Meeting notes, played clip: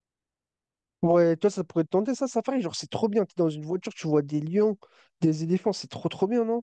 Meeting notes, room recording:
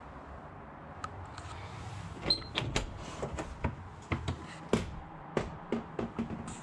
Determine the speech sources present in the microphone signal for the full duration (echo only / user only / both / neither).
neither